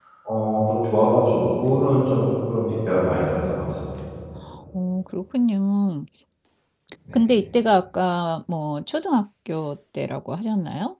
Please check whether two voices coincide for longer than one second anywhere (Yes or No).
No